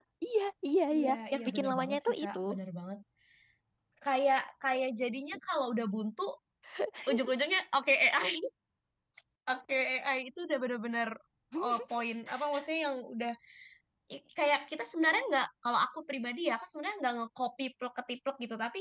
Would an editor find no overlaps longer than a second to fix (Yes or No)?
No